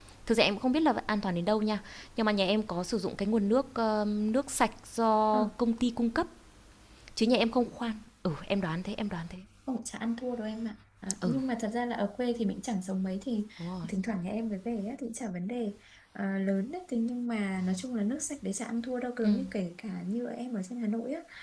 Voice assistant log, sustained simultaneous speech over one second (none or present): none